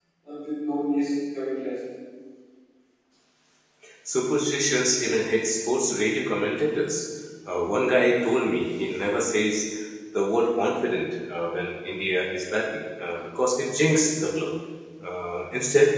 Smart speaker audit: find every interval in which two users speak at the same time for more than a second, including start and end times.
none

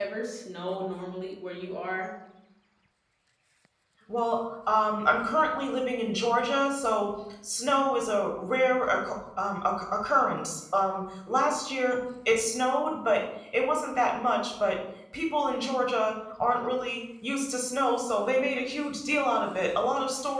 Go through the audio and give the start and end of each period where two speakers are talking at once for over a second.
none

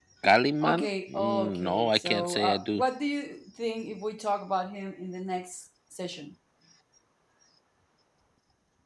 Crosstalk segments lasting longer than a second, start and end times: 0.6-2.8

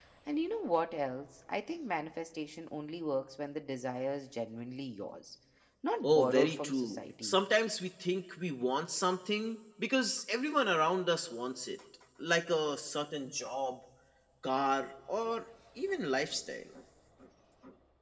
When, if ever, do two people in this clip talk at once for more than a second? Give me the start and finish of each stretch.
6.0-7.4

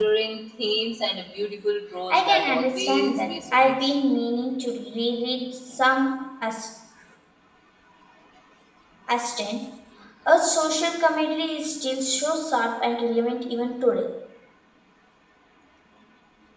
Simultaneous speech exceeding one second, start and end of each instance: 2.1-3.7

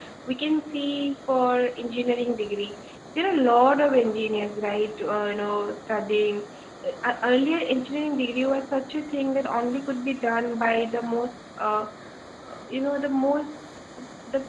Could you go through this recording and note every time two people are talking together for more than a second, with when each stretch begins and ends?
none

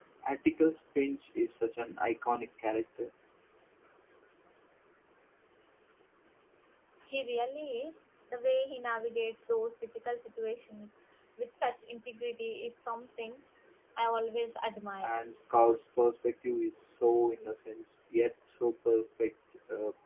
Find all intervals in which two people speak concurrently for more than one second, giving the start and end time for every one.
none

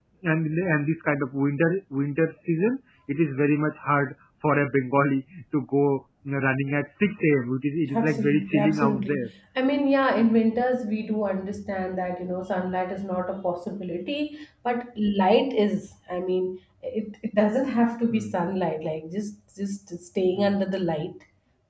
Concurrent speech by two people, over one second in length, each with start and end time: 7.9-9.3

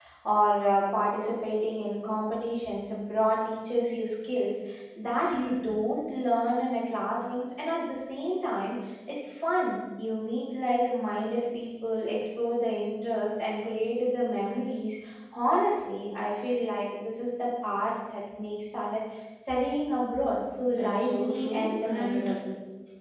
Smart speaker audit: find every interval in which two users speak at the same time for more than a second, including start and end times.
20.6-22.3

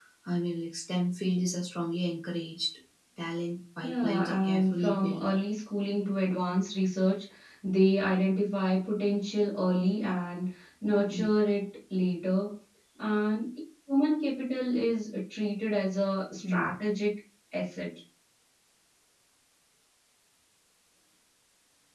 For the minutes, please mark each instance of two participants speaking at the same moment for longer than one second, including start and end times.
3.8-5.3

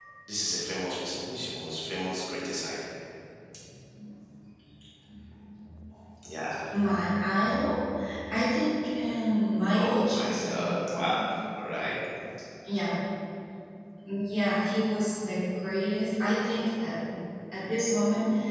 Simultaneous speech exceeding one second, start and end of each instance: 9.8-11.2

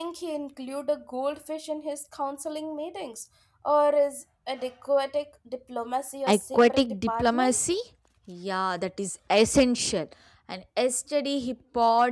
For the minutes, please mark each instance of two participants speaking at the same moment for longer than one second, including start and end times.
6.3-7.6

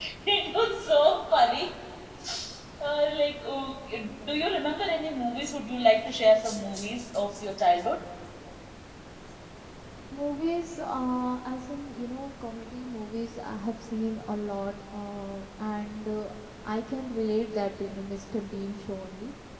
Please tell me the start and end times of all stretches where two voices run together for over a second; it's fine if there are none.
none

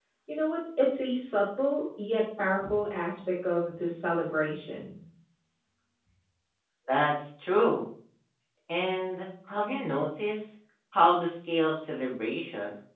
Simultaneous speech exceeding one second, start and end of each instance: none

